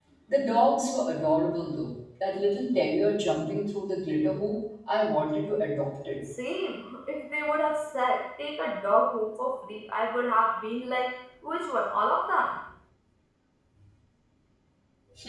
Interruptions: none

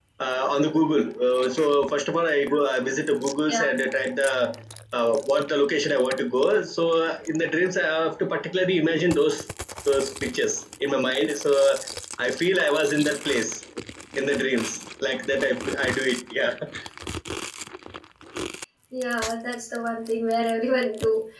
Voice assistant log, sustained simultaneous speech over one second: none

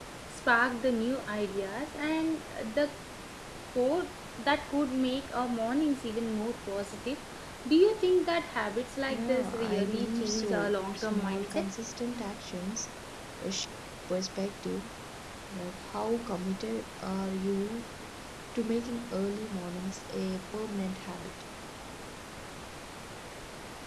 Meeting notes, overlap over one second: present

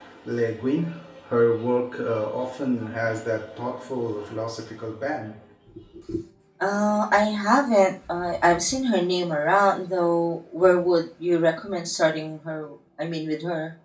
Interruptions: none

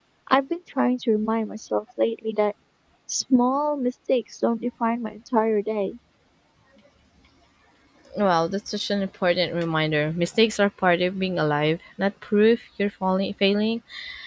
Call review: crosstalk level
none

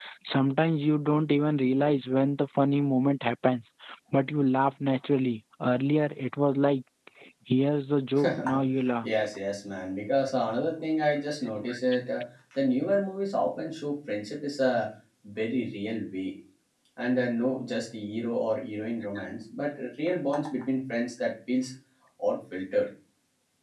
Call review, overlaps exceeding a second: none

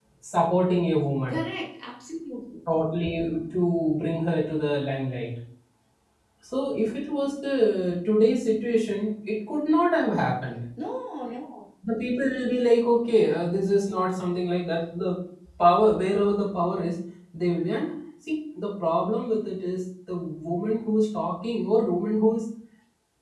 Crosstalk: none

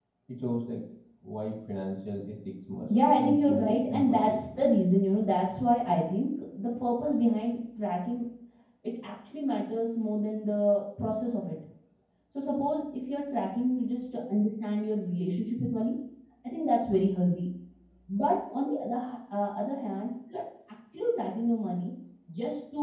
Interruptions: present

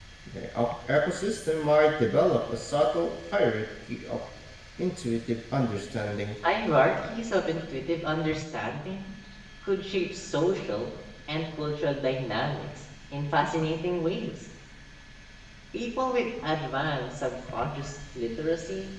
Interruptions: none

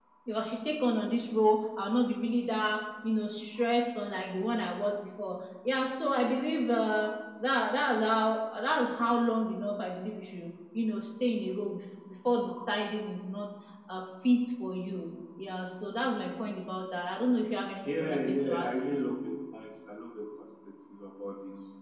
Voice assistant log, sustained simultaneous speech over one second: present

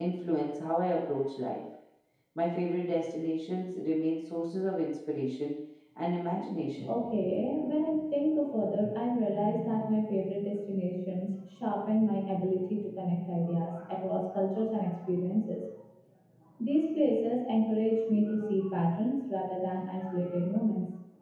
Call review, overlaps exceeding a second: none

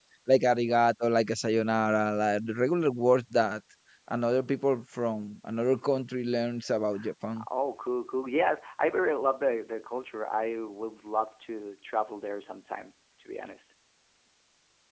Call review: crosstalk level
none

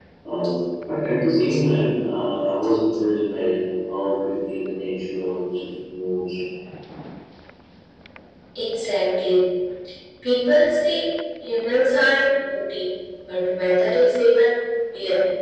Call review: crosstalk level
none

